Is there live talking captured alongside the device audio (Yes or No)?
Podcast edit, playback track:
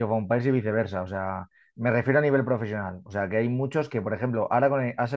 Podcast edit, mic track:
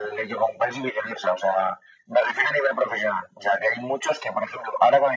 No